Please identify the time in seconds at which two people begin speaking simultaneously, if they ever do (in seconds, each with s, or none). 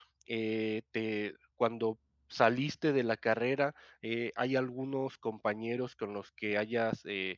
none